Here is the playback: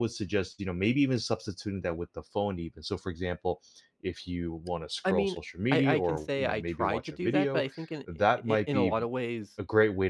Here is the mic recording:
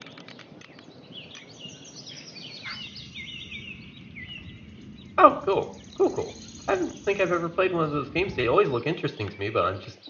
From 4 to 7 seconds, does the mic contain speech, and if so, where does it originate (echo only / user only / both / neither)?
user only